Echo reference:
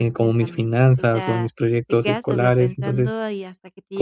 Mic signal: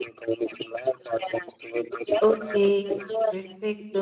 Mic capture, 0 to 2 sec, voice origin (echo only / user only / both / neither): echo only